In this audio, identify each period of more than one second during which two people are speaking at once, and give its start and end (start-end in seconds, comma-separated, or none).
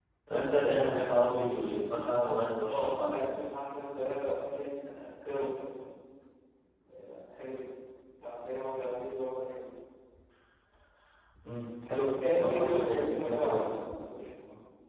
12.4-13.6